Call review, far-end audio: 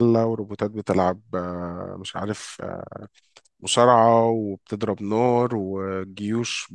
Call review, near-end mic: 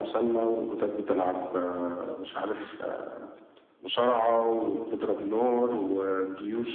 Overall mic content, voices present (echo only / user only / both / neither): echo only